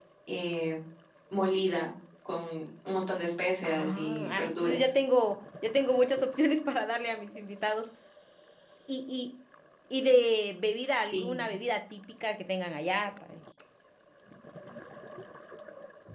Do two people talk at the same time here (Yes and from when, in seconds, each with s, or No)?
Yes, from 3.6 s